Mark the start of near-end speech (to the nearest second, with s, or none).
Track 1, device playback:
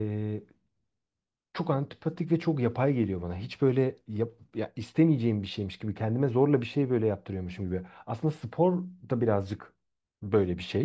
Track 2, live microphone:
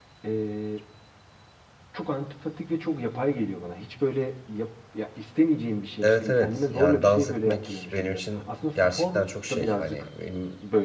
6 s